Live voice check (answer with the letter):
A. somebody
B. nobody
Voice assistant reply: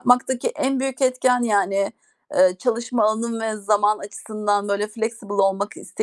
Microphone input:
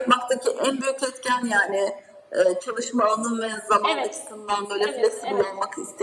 A